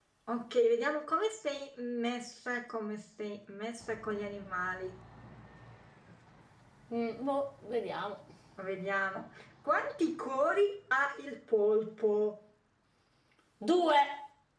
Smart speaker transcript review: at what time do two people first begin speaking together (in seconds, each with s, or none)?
none